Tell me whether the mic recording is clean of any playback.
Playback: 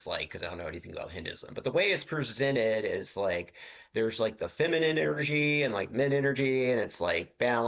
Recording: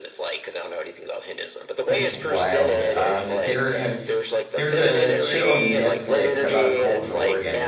No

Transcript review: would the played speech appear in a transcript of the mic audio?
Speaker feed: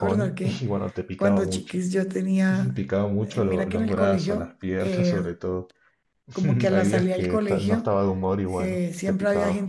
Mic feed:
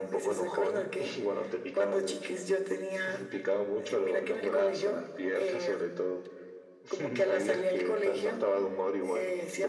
Yes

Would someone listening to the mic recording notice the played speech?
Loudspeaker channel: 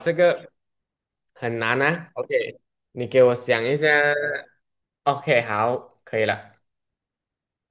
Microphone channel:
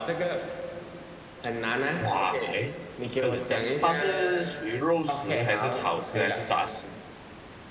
Yes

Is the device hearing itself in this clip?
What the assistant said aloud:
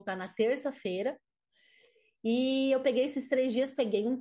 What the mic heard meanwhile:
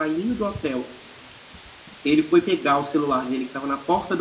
No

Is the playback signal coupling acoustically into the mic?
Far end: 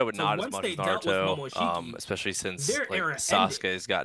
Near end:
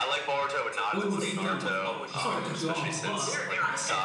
Yes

